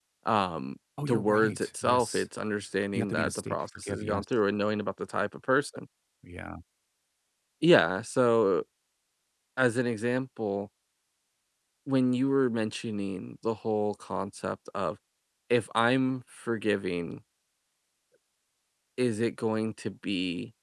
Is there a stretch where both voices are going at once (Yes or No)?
Yes